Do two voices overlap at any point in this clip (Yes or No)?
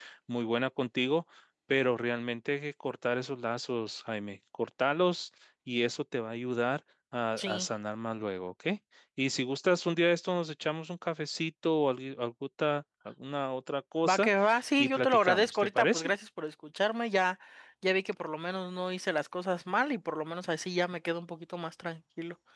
Yes